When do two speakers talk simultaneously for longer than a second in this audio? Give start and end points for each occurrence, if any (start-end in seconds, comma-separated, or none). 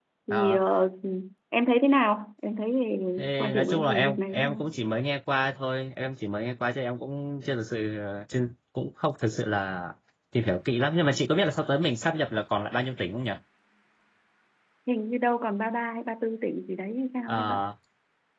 3.4-4.6